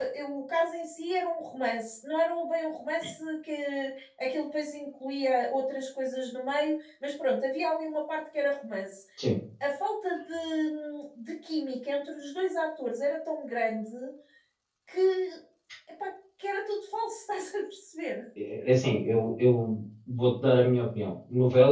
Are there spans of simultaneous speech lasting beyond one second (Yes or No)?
No